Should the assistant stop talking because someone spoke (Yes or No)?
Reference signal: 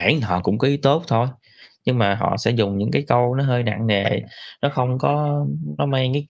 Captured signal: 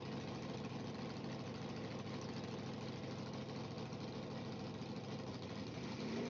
No